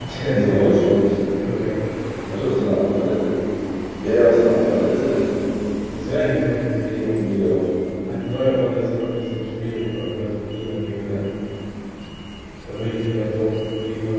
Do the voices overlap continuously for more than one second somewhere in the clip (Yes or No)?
No